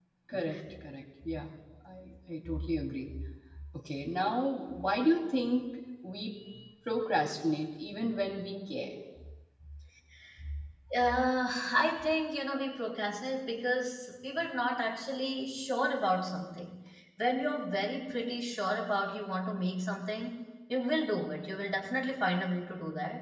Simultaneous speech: No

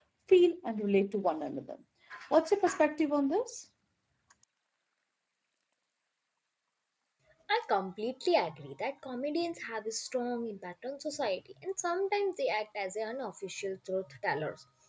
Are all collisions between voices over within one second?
Yes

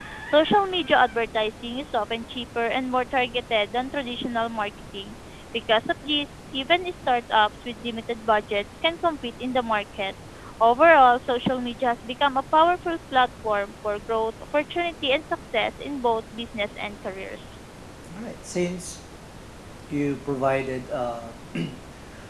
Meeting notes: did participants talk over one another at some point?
No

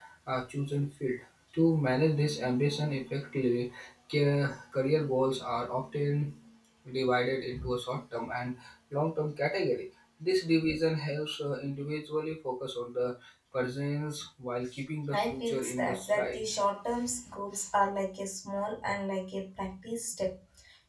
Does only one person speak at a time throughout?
No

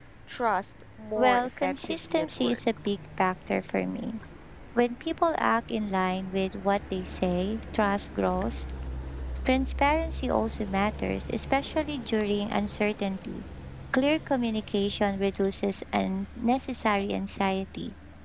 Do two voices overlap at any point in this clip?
Yes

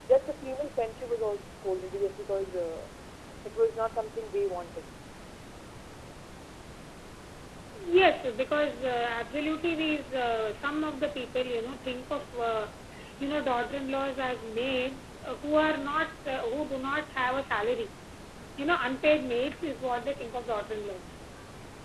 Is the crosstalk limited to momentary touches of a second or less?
Yes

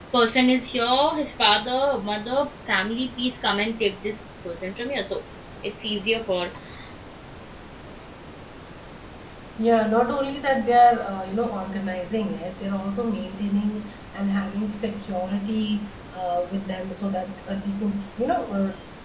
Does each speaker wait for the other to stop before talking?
Yes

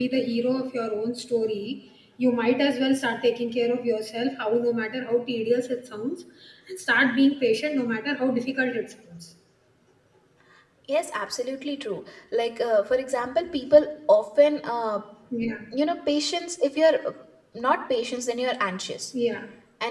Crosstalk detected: No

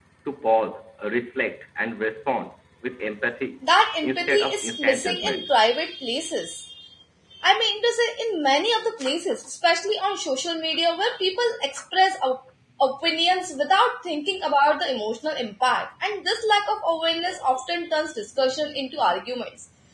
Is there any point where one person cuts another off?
Yes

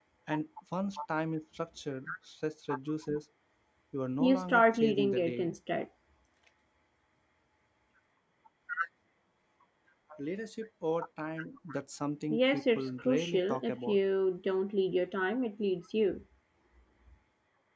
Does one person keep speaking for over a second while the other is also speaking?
Yes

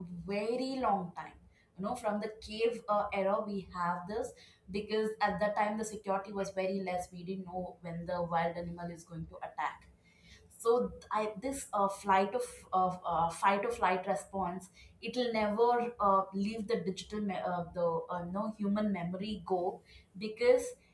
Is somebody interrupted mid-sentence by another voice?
No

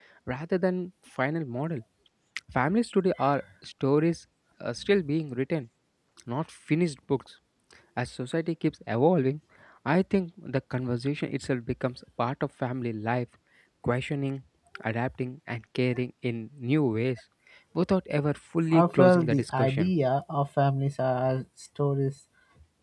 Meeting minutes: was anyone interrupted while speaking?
Yes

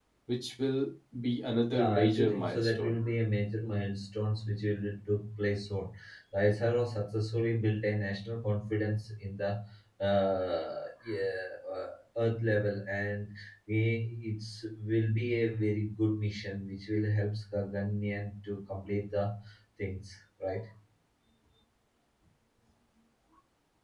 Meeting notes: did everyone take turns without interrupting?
No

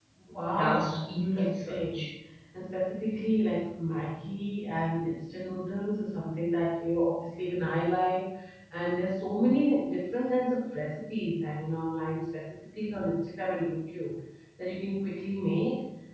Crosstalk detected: Yes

